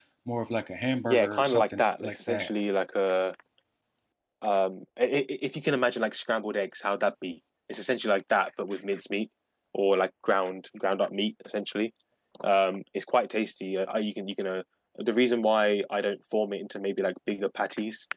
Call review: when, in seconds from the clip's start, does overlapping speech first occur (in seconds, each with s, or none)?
1.0 s